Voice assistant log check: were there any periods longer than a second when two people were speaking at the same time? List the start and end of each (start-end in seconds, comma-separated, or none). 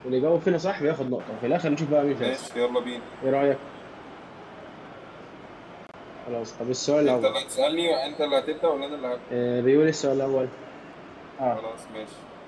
none